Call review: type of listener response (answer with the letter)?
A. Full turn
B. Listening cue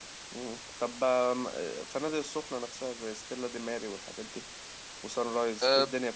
A